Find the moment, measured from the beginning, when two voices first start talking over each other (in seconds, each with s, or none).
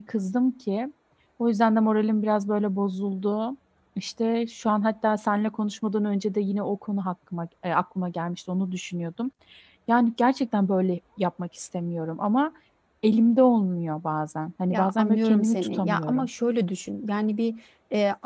14.7 s